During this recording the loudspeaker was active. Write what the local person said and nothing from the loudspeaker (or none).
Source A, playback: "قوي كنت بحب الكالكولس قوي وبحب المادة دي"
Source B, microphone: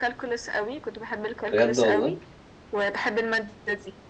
بجد والله